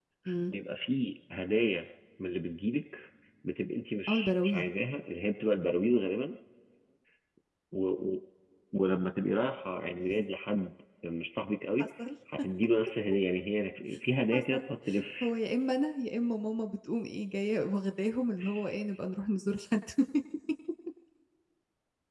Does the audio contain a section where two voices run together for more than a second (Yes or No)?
No